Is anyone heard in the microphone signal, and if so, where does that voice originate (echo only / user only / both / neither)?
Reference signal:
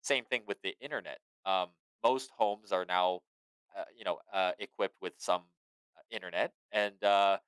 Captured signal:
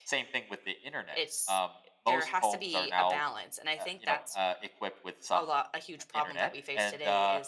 both